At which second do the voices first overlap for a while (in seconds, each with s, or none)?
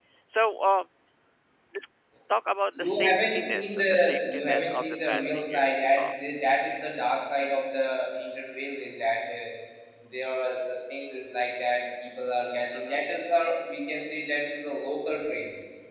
2.8 s